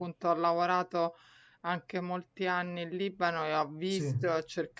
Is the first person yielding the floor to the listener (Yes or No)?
No